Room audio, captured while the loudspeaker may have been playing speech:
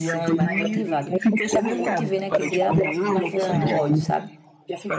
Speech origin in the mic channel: both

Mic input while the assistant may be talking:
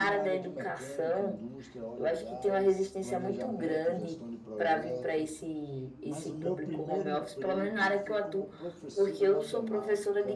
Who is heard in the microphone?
both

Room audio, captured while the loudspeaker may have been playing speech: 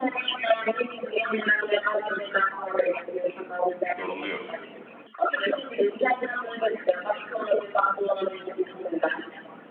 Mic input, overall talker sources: both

